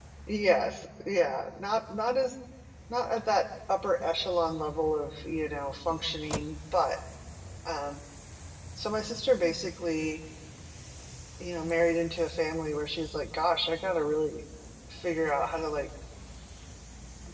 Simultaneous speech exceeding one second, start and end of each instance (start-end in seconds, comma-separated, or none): none